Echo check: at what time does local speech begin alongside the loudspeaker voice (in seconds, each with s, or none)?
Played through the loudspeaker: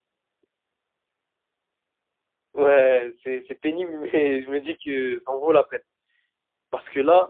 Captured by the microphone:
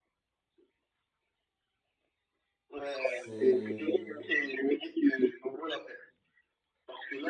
3.0 s